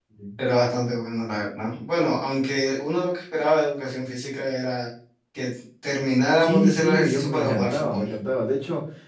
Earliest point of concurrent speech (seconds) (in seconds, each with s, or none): 6.4 s